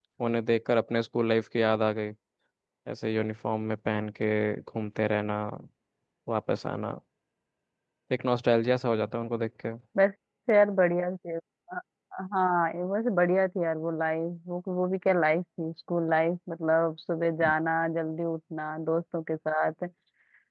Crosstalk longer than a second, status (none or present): none